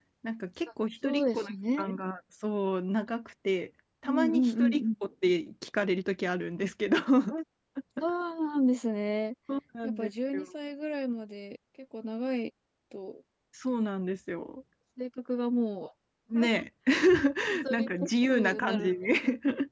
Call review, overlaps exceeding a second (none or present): present